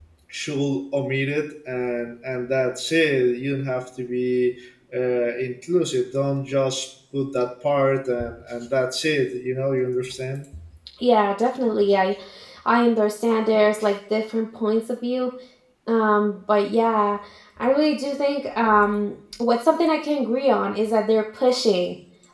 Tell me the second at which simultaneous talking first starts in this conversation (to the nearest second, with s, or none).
none